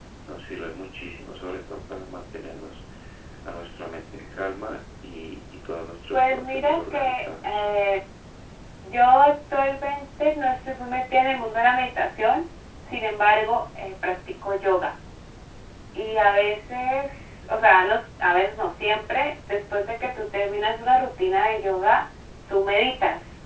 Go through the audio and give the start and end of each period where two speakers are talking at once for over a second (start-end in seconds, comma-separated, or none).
6.1-7.7